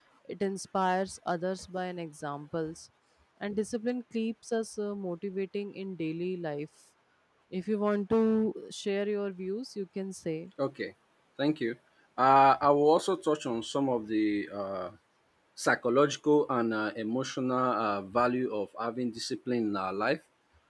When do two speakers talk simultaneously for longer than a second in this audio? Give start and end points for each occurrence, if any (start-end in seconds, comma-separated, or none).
none